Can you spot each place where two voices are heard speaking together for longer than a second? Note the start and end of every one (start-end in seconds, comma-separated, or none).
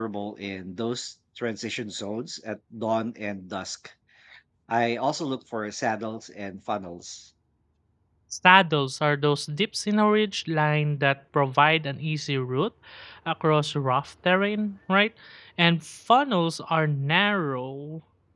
none